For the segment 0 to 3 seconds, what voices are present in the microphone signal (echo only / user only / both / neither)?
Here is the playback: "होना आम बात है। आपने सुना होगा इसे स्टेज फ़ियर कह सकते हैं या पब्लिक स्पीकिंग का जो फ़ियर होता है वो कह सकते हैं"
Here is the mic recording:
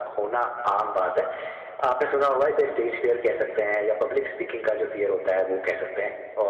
echo only